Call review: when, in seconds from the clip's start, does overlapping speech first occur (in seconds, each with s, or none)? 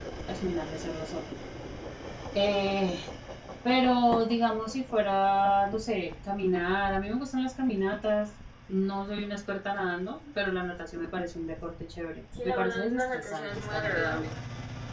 12.4 s